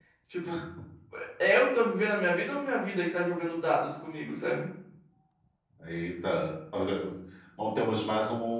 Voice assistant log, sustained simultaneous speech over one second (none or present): none